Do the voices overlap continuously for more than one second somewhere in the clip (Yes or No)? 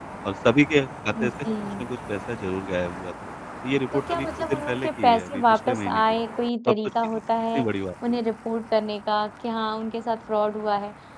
Yes